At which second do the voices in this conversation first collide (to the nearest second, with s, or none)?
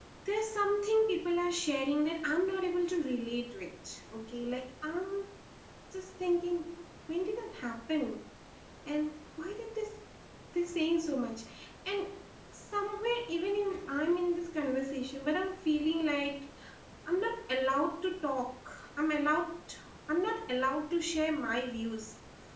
none